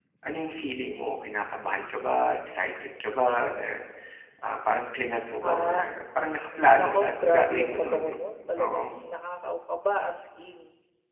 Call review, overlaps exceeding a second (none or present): present